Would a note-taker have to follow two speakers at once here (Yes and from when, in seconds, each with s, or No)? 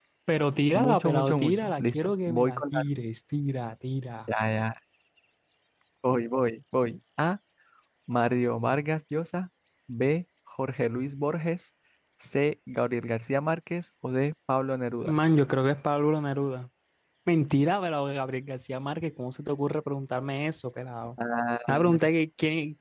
Yes, from 0.8 s